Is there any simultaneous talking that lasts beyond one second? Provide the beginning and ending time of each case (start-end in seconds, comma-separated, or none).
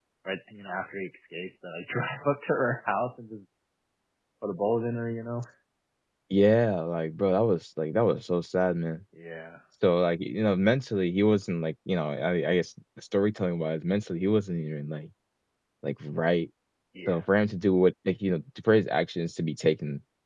none